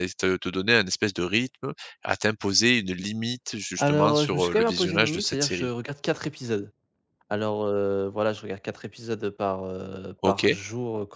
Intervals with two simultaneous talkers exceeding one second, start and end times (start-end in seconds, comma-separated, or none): 3.8-5.7